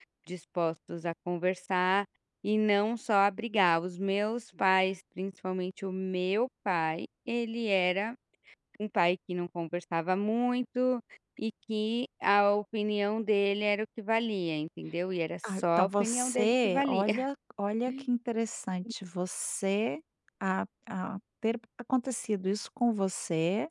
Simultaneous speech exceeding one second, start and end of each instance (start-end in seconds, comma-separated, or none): 15.5-17.0